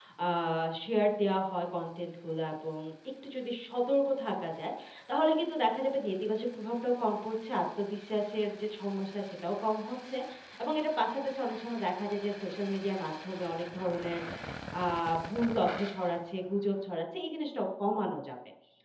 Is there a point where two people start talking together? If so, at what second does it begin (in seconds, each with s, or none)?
none